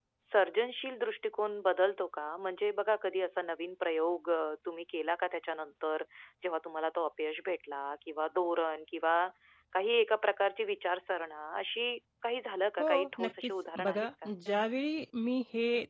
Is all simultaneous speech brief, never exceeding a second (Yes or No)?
No